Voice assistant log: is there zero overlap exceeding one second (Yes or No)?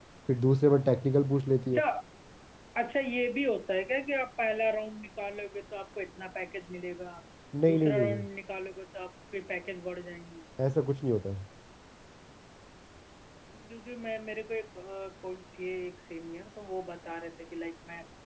Yes